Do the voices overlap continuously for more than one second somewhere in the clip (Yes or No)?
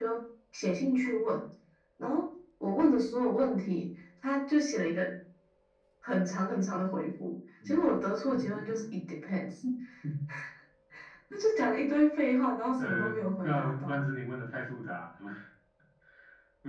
Yes